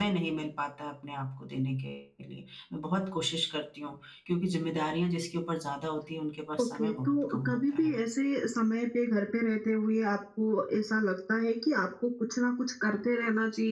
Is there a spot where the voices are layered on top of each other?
Yes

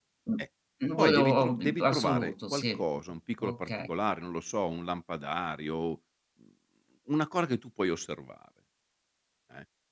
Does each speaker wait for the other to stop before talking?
No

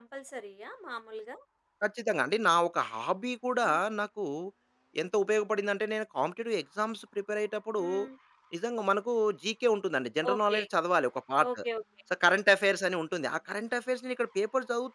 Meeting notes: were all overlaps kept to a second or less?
Yes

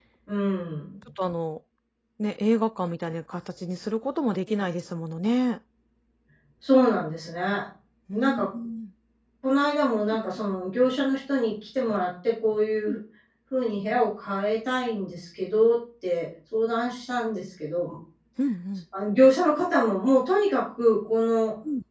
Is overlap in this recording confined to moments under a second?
Yes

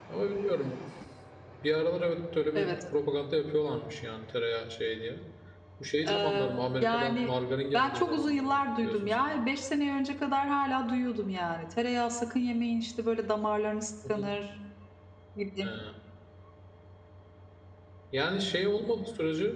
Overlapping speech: Yes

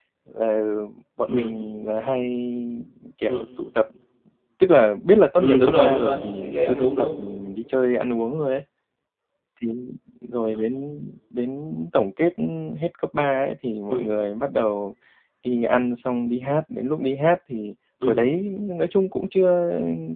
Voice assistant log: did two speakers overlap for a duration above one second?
Yes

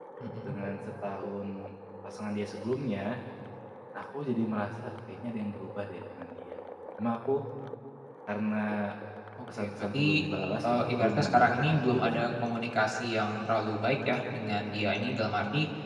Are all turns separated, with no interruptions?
No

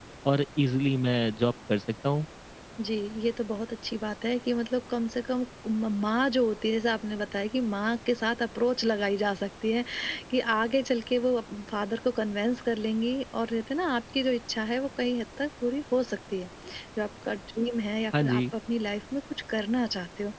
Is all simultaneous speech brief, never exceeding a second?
Yes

